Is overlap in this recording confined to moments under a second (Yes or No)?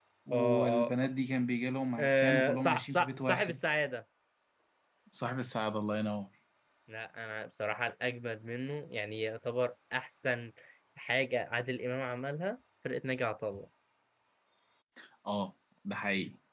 No